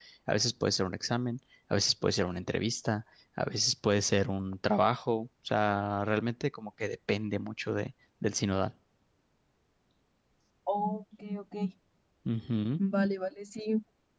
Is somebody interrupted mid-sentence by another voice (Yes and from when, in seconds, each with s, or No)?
No